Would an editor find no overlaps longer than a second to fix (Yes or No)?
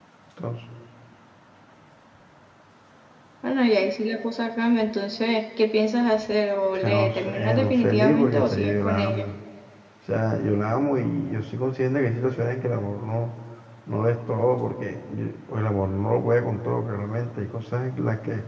No